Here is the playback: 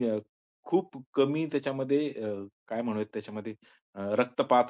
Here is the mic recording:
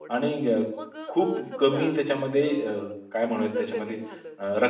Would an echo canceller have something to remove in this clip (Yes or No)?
Yes